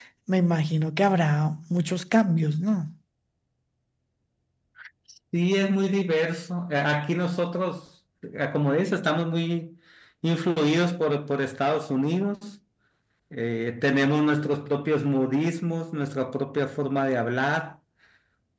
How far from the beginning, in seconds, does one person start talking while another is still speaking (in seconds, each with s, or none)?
none